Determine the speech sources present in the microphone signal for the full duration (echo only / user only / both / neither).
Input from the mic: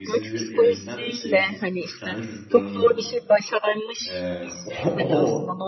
both